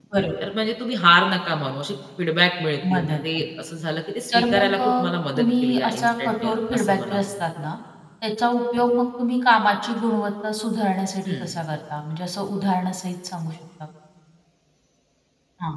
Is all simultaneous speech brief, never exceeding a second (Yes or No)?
No